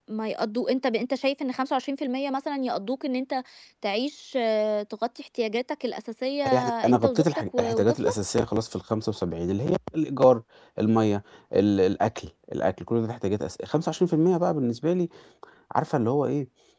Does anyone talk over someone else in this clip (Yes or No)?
Yes